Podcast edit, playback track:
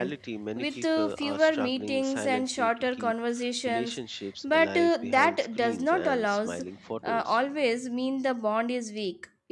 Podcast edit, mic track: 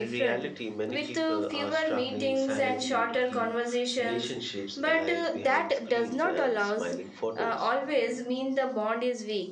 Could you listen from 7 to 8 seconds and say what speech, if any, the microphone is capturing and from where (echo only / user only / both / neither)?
echo only